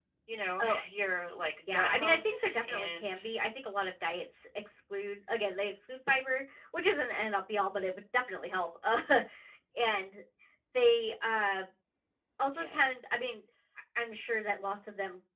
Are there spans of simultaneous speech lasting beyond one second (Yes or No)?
Yes